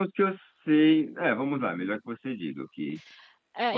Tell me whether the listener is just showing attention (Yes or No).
No